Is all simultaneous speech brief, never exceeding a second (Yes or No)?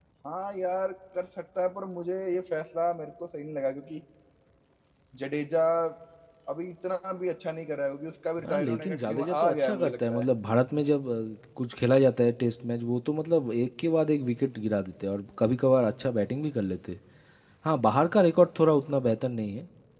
No